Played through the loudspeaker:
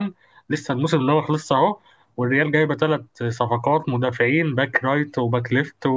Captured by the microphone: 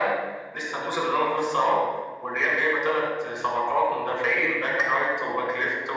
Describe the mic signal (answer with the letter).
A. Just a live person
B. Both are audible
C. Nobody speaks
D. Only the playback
D